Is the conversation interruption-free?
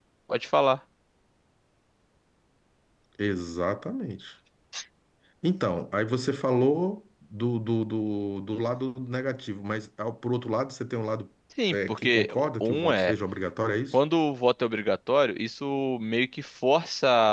No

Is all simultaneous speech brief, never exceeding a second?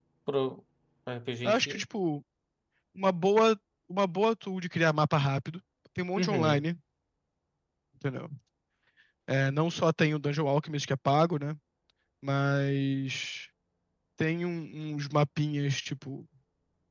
Yes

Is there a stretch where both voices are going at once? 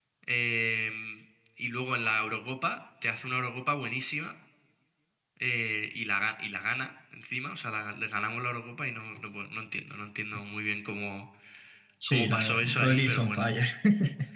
Yes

